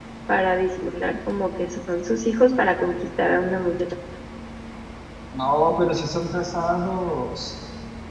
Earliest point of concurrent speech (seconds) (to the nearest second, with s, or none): none